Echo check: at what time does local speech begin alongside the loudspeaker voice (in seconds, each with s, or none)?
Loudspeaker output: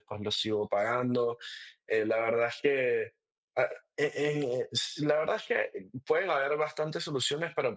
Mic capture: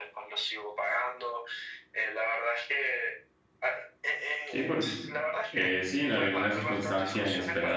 4.5 s